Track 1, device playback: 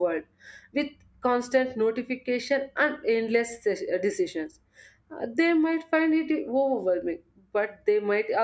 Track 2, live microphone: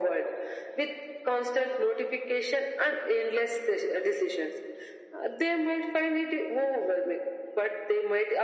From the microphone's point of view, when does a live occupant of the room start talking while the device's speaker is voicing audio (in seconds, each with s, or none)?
none